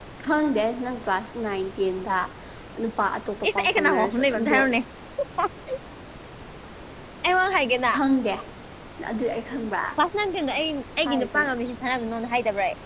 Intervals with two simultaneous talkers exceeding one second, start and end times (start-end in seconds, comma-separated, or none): 3.5-4.8